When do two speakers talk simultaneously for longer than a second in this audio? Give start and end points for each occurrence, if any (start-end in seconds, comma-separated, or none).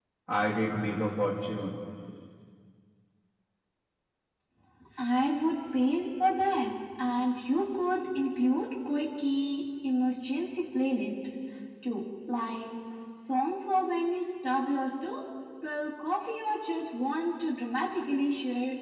none